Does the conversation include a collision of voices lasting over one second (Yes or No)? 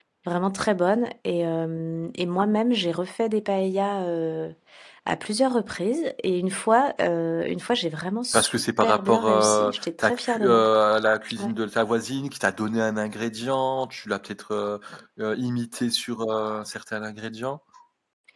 Yes